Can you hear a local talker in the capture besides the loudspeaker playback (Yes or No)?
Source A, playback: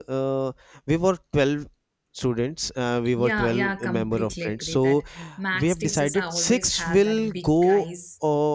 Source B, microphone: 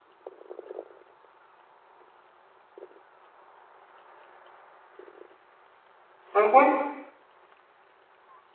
Yes